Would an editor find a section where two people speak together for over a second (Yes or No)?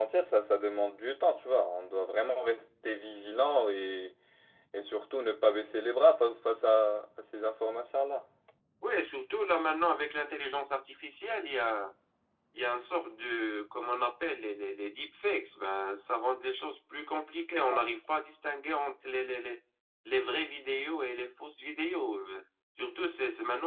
No